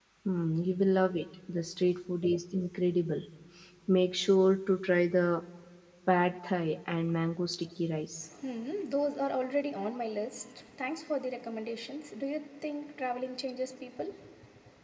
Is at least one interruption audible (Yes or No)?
No